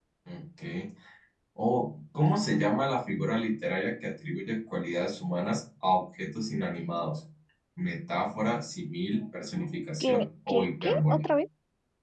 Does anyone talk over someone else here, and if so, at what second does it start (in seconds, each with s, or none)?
10.0 s